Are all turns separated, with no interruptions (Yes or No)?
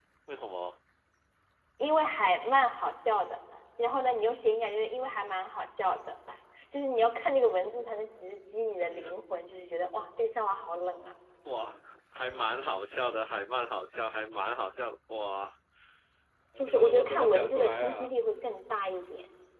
No